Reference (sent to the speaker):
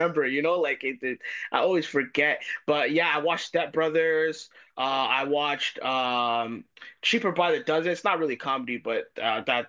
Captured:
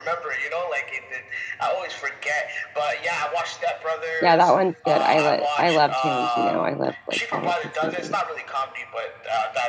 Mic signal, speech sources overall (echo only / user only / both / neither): both